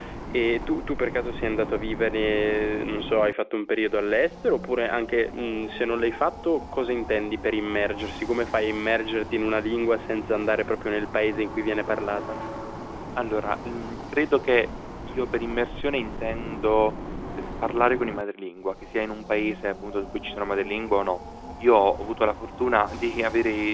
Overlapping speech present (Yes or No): No